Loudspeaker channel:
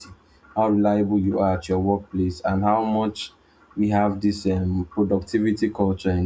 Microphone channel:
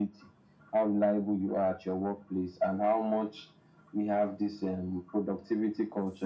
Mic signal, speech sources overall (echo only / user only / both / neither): echo only